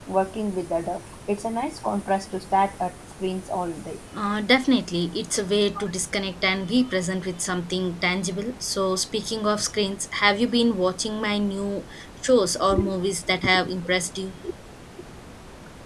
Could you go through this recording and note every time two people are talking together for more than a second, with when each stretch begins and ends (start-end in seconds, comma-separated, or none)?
none